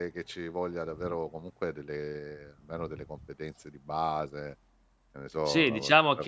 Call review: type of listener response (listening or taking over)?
taking over